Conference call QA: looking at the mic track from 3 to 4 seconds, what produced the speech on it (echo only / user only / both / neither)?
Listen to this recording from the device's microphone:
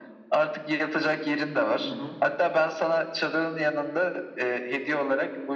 echo only